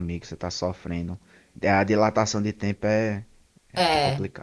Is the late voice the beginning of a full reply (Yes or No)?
Yes